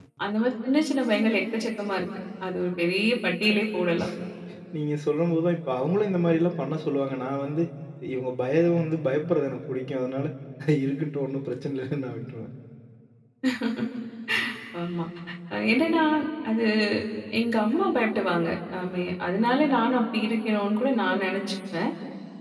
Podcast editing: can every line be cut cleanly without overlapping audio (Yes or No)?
Yes